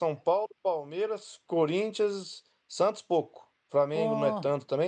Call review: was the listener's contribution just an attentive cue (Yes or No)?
Yes